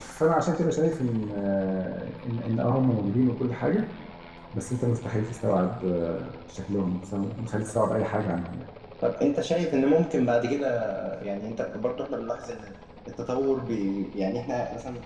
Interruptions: none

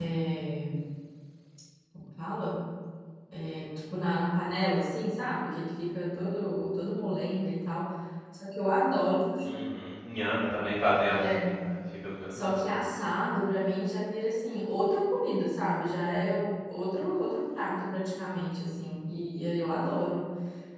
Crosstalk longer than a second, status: none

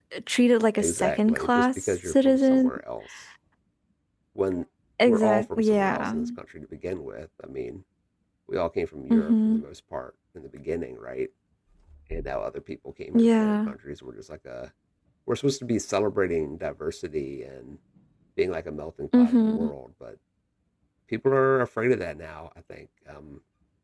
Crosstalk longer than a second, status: present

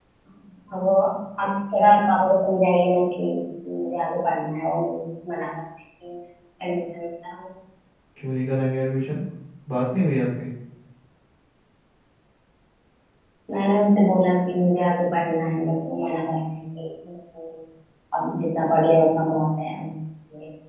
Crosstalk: none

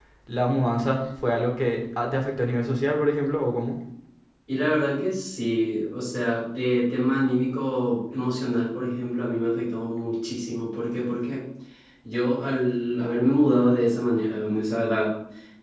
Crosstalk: none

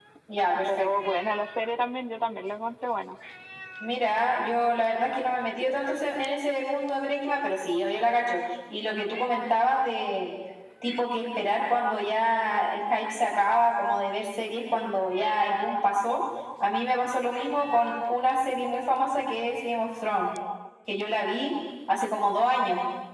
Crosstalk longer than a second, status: none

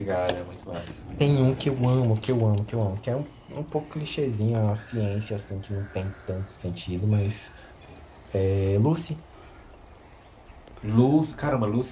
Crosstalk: none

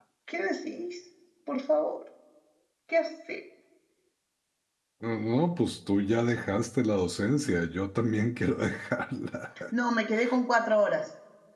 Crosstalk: none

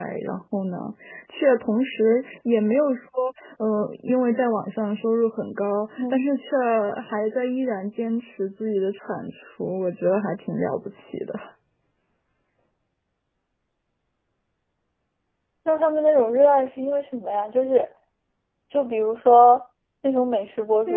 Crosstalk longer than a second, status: none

